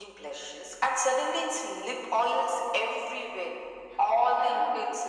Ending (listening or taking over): listening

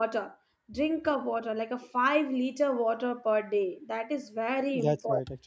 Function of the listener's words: taking over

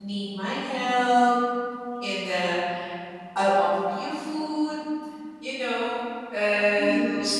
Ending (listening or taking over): listening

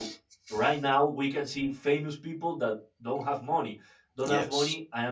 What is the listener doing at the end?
listening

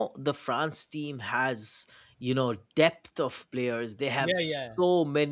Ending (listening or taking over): listening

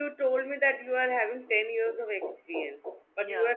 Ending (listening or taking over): listening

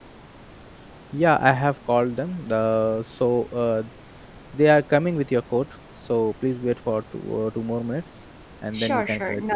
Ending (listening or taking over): taking over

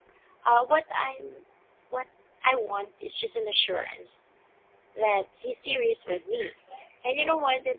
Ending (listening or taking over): listening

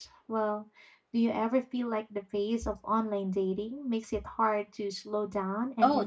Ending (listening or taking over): taking over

